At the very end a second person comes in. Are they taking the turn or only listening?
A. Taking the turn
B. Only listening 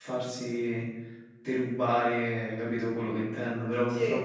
B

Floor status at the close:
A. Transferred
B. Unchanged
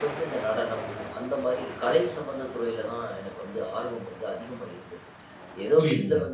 B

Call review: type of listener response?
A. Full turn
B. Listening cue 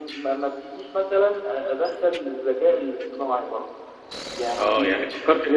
A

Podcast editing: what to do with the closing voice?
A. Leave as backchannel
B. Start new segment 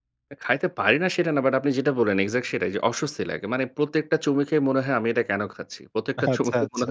A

